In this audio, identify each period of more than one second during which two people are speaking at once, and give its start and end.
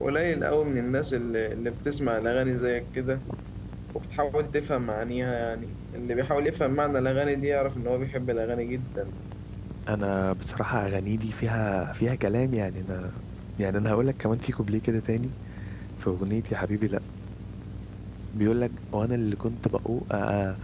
none

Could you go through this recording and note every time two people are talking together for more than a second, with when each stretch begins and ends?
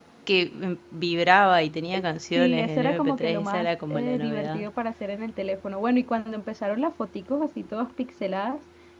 2.4-4.7

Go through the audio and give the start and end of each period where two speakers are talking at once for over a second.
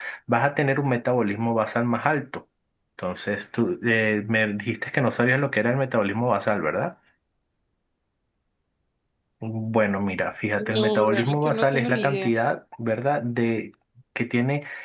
10.6-12.3

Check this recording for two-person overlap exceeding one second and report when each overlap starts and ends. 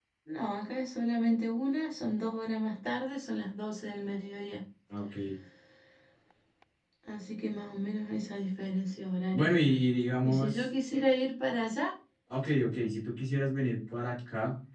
none

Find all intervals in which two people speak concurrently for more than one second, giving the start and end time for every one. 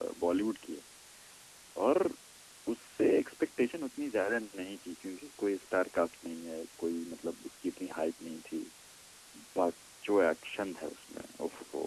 none

